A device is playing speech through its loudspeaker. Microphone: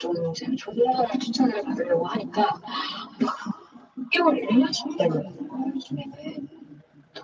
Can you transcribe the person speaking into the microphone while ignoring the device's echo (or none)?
none